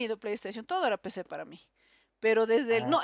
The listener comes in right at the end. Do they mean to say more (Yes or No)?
No